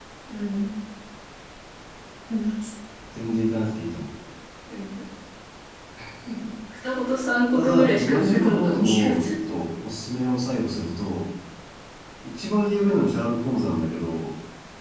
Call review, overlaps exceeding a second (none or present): present